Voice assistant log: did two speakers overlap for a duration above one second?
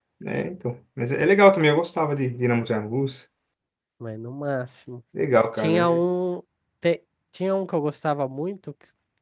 No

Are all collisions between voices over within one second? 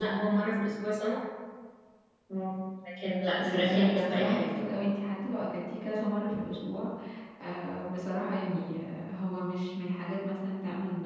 No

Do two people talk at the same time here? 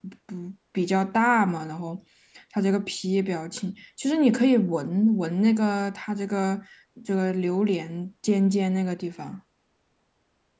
No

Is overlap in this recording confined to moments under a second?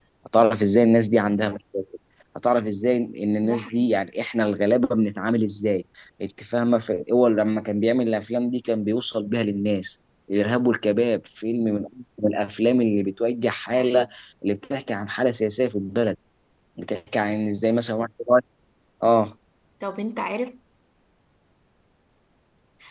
Yes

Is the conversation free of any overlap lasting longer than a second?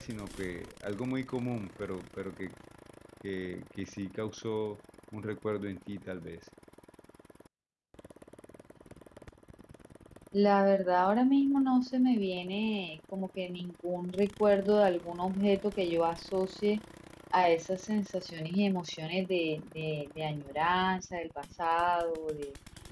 Yes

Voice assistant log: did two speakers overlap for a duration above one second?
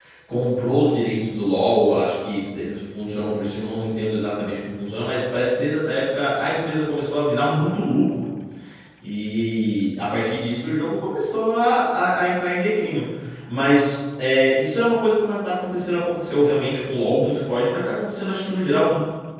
No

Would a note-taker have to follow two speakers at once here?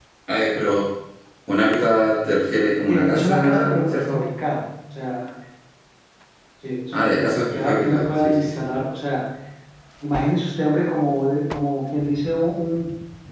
Yes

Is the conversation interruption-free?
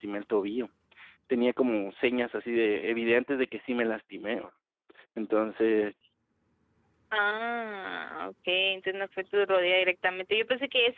Yes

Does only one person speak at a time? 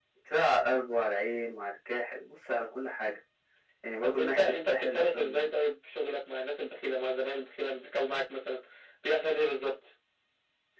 No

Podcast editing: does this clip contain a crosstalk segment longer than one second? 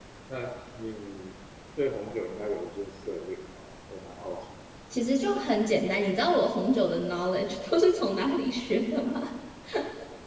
No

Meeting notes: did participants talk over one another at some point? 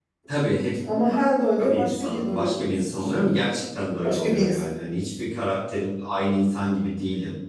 Yes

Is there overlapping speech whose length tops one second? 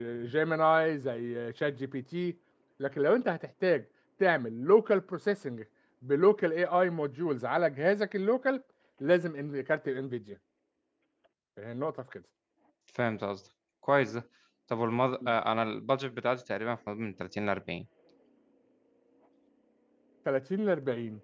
No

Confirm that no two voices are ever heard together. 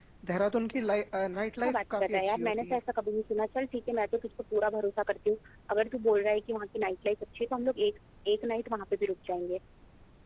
No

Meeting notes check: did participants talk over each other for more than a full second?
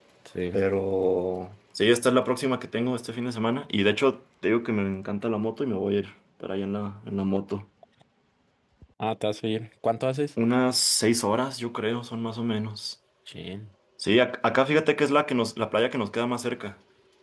No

